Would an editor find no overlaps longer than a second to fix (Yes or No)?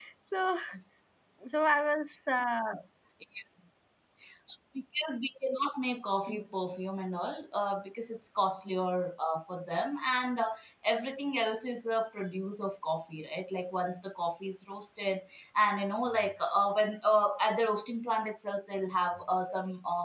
Yes